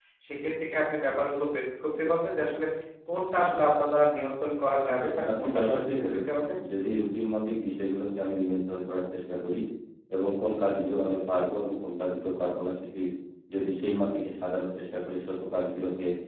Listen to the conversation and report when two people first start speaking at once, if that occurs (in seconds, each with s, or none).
4.9 s